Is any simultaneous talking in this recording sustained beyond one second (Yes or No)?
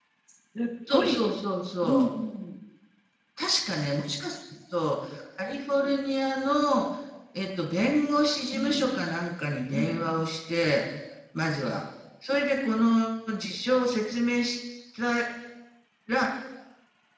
No